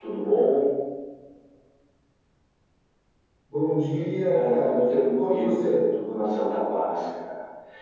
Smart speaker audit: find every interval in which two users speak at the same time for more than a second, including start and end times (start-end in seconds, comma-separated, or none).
4.3-5.8